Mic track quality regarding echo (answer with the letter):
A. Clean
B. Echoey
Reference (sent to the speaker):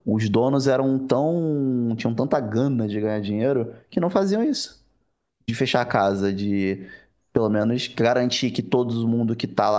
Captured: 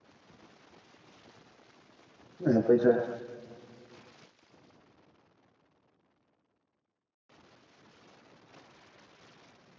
A